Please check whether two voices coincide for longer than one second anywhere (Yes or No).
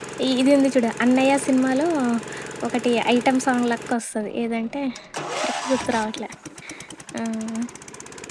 No